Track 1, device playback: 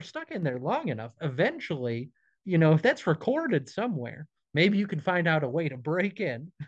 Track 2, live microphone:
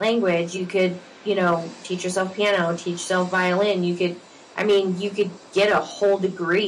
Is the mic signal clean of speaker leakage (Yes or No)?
Yes